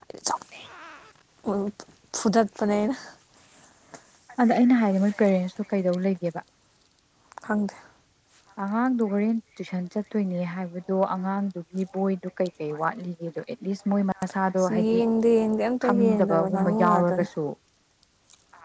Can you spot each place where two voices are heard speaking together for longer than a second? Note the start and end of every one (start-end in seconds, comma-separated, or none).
15.8-17.3